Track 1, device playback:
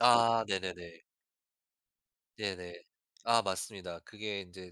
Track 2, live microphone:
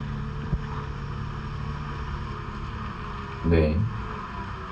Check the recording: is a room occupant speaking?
Yes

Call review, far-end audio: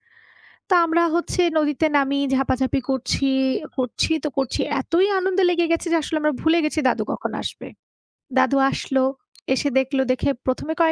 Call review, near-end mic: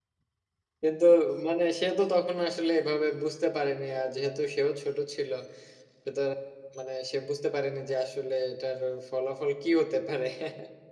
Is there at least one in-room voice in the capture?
Yes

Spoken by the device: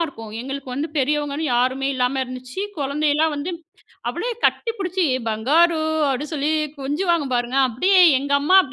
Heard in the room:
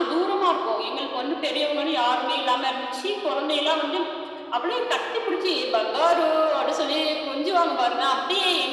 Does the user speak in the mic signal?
No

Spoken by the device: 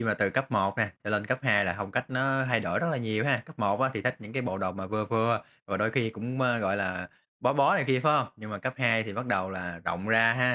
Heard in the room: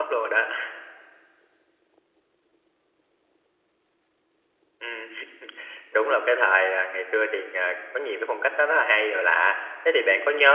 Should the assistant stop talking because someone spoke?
Yes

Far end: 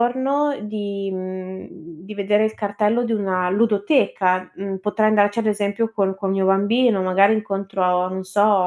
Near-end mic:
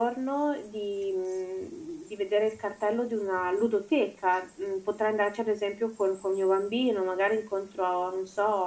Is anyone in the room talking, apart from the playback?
No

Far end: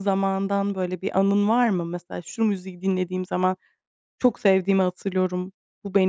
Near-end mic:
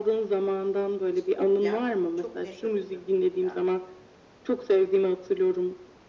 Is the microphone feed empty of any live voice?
No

